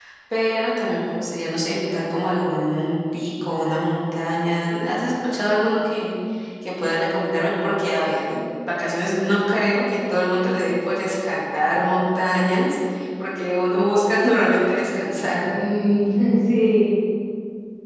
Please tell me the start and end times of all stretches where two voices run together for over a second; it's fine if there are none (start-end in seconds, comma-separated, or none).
none